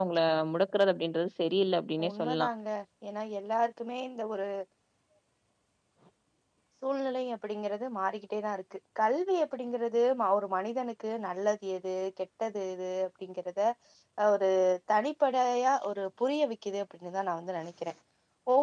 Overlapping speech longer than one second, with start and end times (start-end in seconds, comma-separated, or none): none